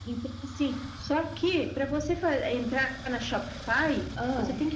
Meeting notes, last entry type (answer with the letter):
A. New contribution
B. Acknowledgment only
B